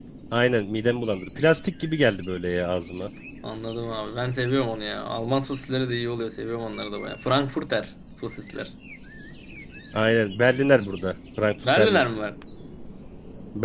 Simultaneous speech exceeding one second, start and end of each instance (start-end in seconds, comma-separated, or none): none